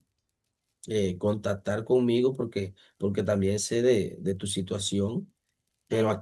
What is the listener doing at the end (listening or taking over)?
listening